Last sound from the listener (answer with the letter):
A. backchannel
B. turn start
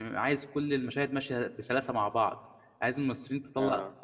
A